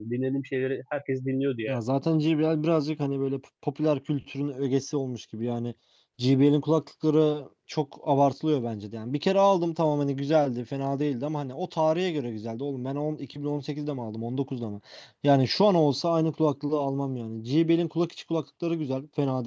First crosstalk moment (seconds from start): none

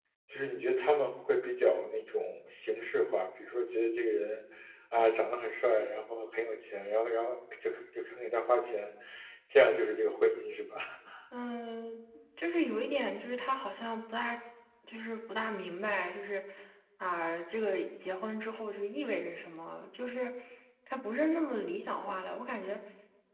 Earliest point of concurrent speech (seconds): none

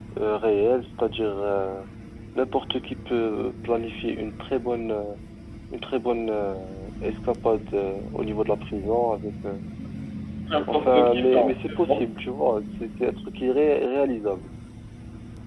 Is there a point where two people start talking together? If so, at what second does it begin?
10.7 s

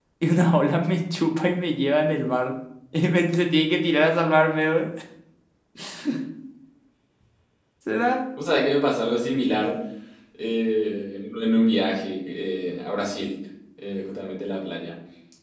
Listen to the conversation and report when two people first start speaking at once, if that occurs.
none

